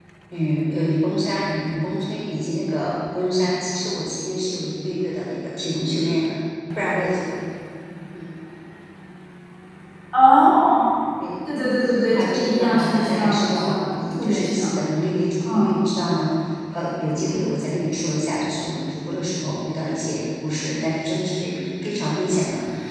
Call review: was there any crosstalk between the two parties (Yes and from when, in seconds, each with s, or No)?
Yes, from 11.9 s